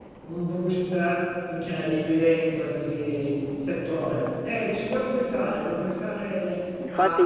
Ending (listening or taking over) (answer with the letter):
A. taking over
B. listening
A